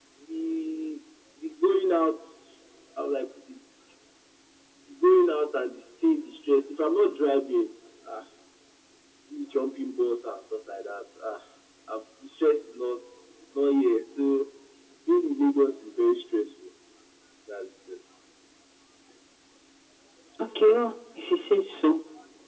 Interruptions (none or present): none